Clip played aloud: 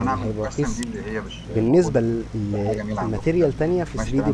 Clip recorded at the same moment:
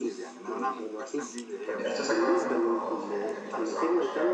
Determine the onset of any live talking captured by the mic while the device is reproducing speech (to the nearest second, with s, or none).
2 s